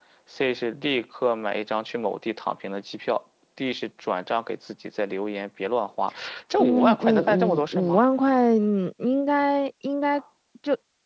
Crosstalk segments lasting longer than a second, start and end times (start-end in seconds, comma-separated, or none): 6.6-8.0